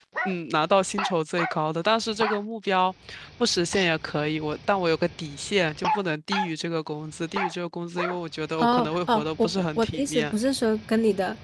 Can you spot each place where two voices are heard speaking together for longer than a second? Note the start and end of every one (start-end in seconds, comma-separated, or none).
8.6-10.3